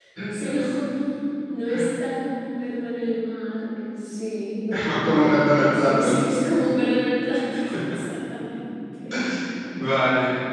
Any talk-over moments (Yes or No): Yes